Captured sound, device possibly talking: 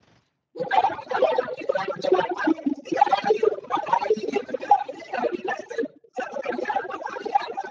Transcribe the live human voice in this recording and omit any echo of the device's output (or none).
none